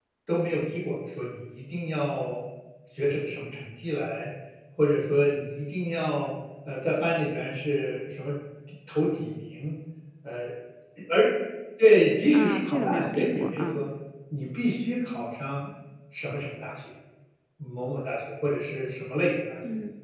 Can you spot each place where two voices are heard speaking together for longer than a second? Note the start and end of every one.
12.3-13.8

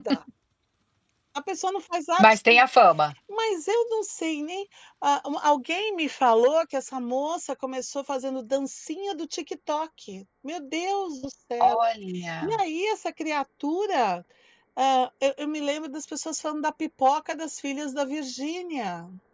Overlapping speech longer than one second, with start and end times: none

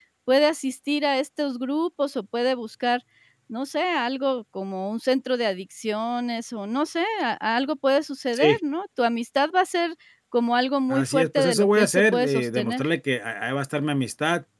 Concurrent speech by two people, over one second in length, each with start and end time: 10.9-12.8

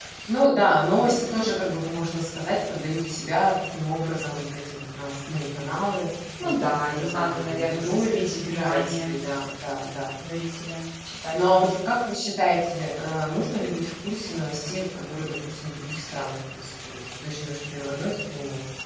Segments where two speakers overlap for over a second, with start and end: 6.4-9.1

